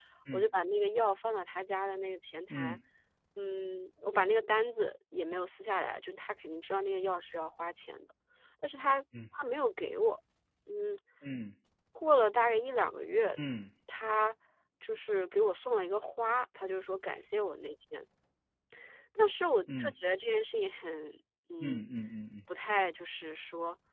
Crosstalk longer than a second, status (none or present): none